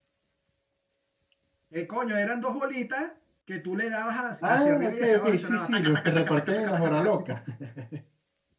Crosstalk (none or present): present